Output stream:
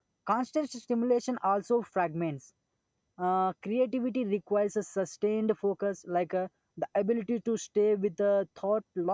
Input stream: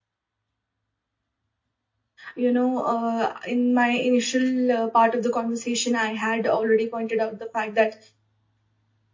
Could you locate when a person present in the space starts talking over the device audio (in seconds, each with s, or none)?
2.3 s